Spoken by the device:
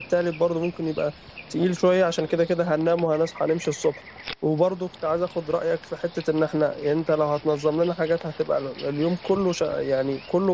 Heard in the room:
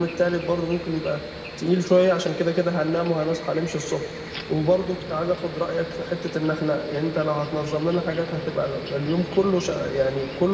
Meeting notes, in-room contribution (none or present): none